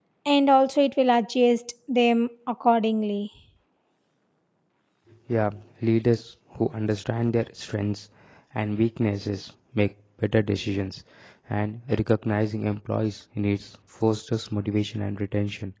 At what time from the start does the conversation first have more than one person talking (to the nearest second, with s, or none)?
none